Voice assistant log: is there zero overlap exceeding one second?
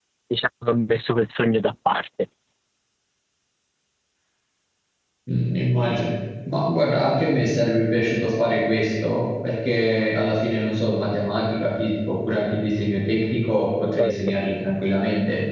Yes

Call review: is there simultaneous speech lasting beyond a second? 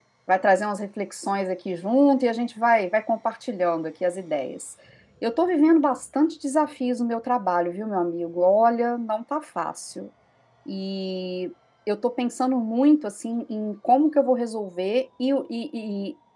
No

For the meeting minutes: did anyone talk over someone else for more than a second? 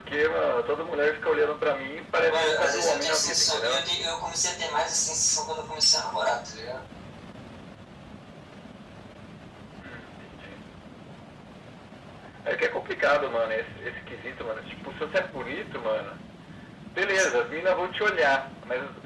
Yes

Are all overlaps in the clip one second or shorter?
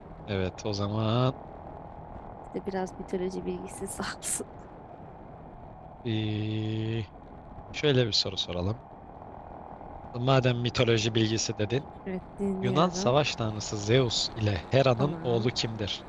Yes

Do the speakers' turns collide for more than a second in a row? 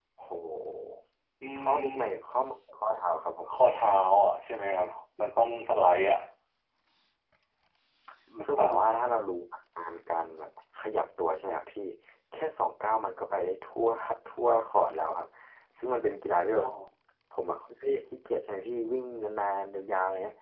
No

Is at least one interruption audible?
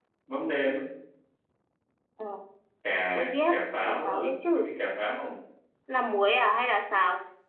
Yes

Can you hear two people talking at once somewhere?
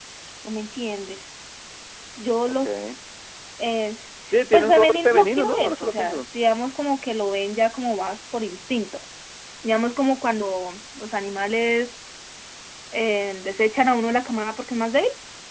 Yes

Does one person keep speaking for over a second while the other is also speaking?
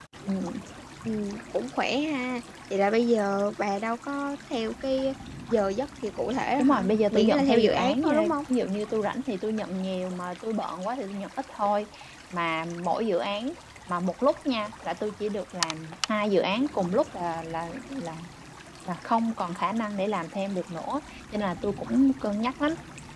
Yes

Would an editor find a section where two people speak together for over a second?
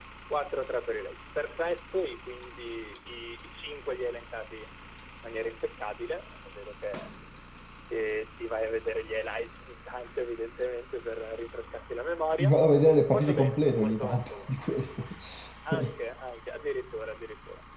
Yes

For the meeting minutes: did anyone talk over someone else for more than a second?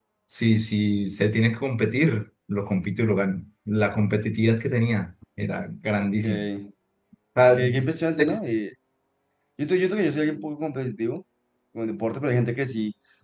No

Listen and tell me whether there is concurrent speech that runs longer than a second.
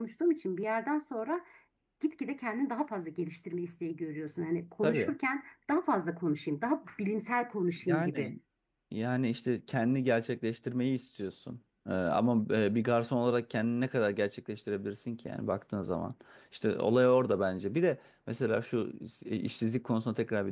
No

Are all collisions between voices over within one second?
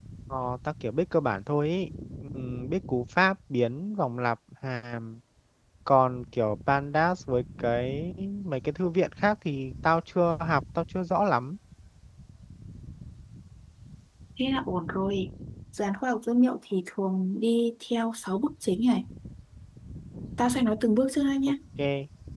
Yes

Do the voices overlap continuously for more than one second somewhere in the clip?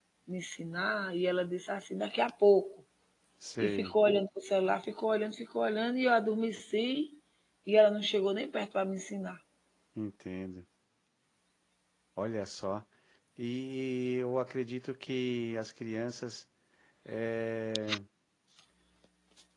No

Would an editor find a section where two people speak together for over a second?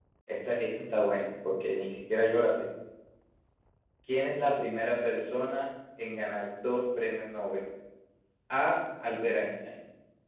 No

